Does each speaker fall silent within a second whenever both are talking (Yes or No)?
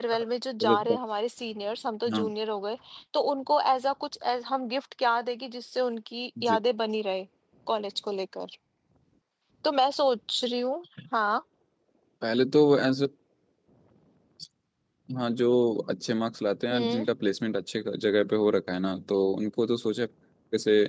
Yes